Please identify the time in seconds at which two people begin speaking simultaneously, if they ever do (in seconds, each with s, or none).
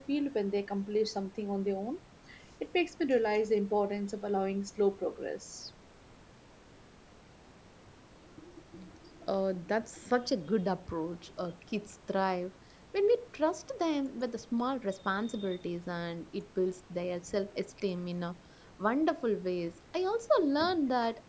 none